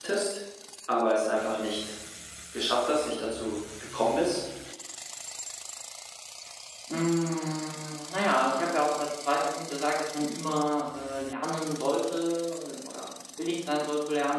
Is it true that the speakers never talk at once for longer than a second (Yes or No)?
Yes